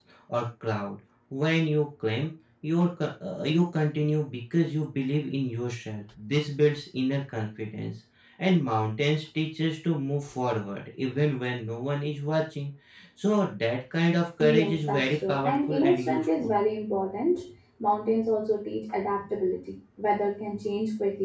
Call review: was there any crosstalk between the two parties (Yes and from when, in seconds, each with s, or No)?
Yes, from 14.4 s